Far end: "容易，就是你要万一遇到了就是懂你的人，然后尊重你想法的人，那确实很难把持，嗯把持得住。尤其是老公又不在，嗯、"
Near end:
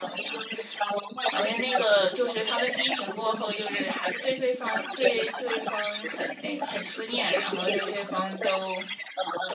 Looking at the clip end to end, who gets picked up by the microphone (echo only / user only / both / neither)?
both